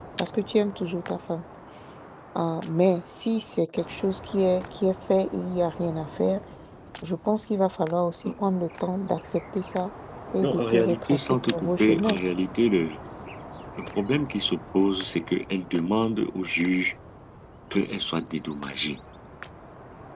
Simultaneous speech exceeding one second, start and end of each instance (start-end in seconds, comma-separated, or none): 10.4-12.2